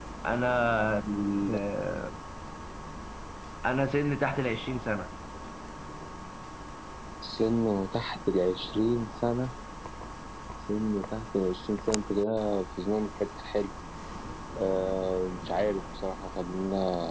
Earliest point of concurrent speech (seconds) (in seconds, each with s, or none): none